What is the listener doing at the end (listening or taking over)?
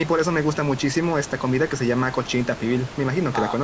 taking over